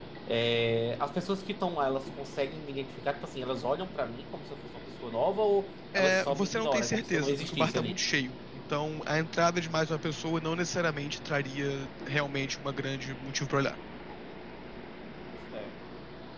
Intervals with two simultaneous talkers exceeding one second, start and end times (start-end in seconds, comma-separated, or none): 5.9-8.0